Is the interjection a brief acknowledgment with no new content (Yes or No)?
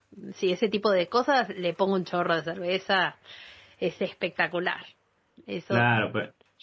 No